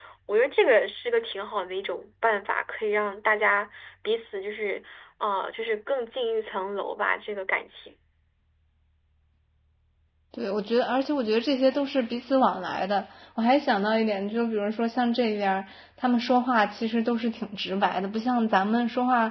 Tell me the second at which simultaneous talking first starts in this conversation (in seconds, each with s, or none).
none